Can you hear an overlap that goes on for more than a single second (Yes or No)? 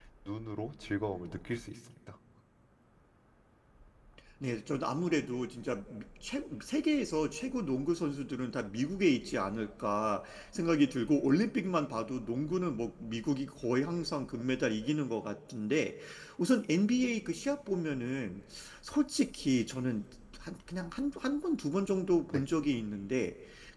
No